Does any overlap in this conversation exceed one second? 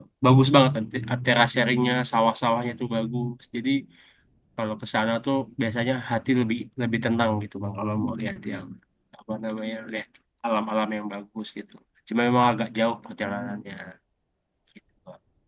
No

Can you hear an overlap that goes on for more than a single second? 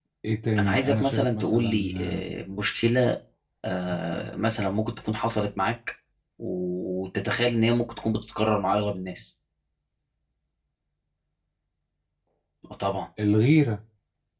Yes, from 0.6 s

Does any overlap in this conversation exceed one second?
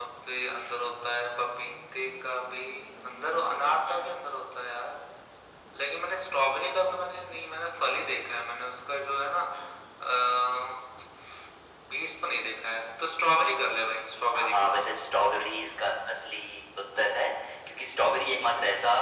No

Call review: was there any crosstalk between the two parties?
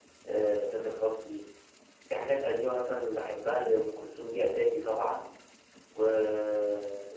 No

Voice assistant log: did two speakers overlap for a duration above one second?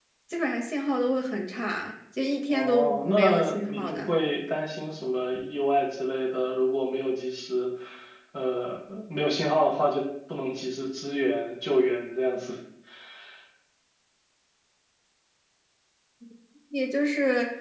Yes, from 2.5 s

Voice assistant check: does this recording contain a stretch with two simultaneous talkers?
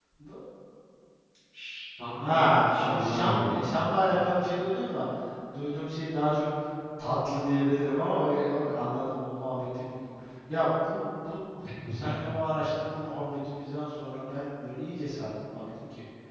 Yes, from 2.2 s

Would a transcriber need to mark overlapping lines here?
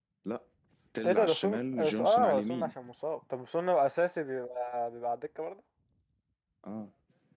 Yes, from 1.0 s

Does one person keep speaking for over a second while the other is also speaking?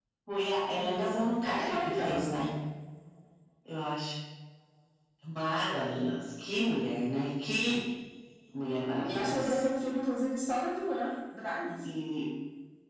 Yes, from 0.8 s

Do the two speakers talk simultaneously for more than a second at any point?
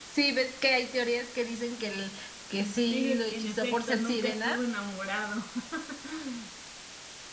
Yes, from 2.8 s

